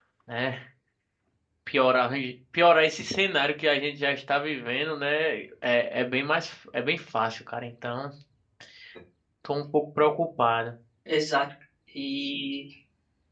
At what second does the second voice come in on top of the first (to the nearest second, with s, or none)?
none